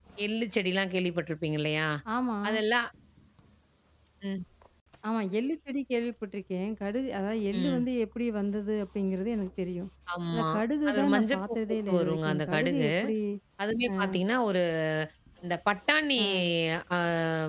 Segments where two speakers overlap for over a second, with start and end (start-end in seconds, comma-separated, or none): 10.9-12.9